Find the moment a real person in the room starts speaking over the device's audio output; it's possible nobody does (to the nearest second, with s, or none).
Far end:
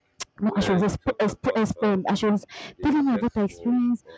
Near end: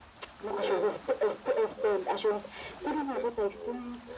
none